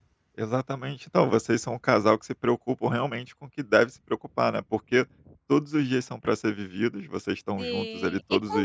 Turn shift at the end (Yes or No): Yes